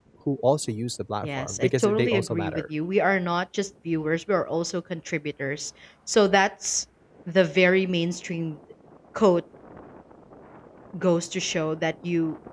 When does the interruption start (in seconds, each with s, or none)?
1.2 s